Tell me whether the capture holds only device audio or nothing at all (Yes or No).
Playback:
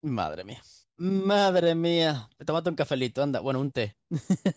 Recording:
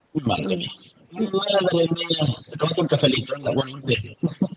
No